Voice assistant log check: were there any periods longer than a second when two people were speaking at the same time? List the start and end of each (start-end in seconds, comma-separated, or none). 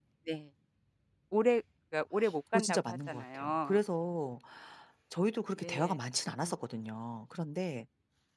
2.5-3.8